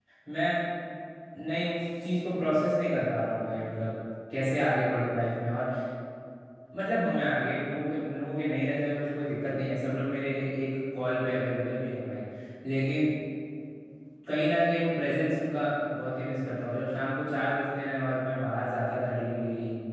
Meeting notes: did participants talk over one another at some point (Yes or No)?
No